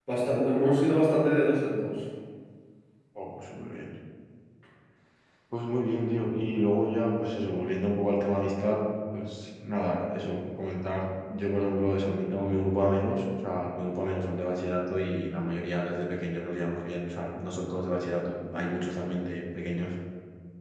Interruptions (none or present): none